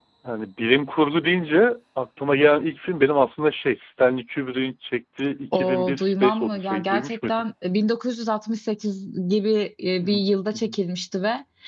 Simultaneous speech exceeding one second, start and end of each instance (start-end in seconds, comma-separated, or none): 5.5-7.4